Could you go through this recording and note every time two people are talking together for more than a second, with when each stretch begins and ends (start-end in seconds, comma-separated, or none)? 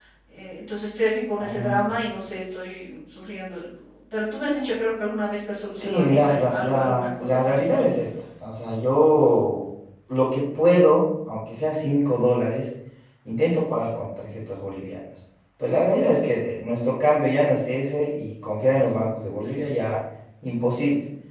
5.7-7.8